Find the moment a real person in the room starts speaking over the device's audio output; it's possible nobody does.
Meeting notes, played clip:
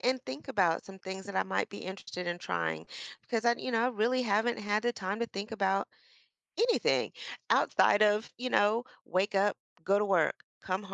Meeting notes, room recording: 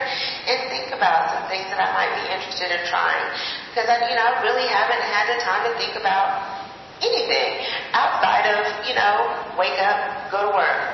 none

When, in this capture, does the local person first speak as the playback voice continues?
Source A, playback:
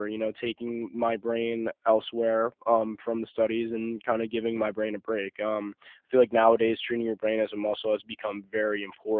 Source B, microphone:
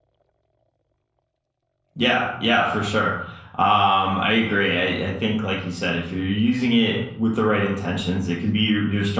1.9 s

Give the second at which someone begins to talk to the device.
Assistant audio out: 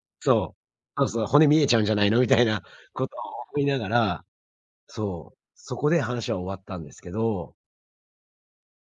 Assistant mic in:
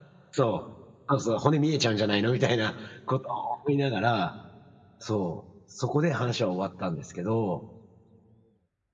none

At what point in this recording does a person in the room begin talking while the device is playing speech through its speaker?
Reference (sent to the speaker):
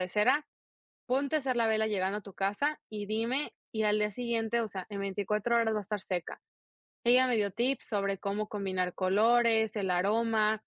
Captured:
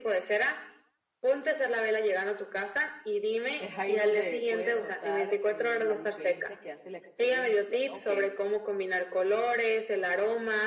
3.6 s

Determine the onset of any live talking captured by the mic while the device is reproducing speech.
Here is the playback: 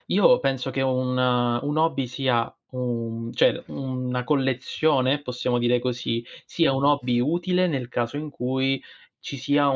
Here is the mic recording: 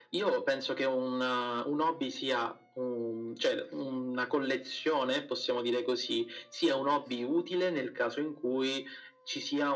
none

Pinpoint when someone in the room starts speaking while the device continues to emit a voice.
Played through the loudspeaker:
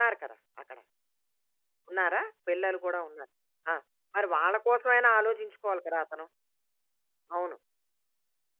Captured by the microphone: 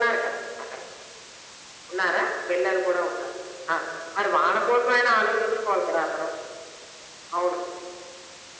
none

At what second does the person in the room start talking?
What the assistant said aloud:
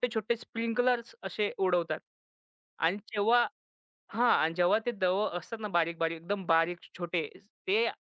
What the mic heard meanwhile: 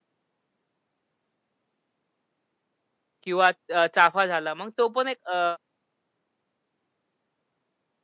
3.2 s

